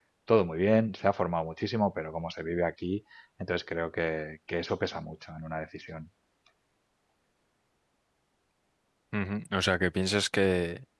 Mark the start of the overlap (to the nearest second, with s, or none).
none